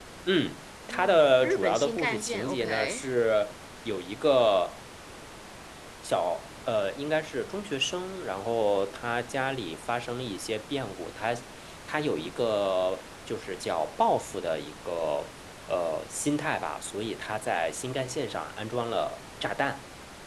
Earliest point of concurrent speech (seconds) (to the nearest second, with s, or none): 1 s